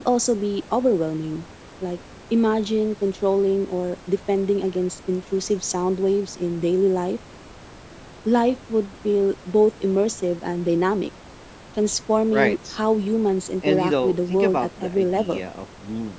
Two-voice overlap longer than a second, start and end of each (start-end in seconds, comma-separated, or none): 13.6-15.4